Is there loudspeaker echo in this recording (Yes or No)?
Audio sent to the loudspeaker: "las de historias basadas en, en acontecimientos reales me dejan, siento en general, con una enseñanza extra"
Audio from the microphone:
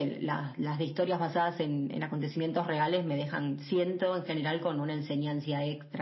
Yes